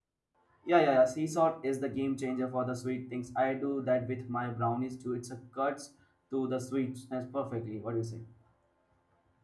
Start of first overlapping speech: none

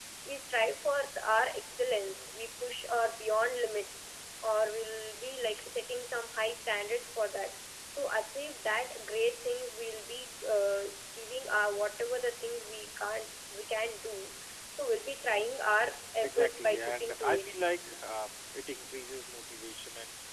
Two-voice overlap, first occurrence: 16.2 s

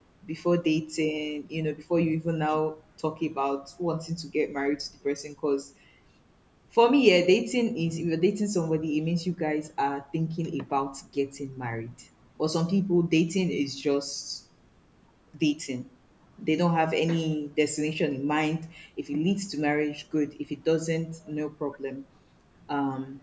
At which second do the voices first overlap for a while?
none

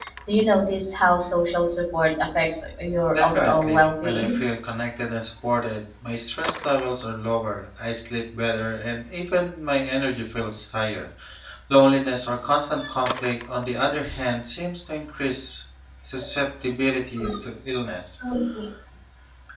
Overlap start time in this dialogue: 3.1 s

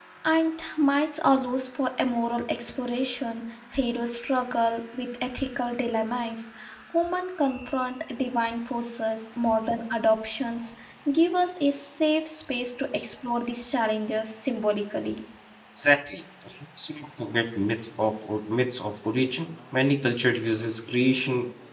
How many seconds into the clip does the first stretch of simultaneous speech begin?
none

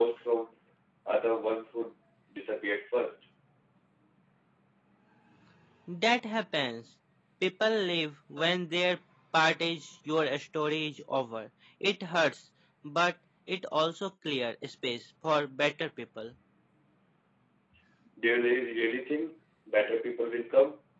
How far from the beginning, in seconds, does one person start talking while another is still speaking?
none

